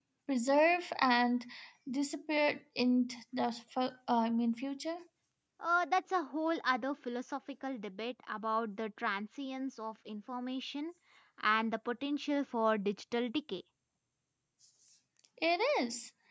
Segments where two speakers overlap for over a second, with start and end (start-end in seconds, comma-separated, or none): none